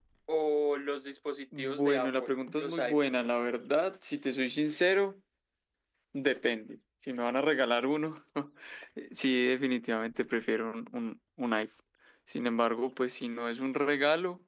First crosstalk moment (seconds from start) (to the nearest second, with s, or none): 2 s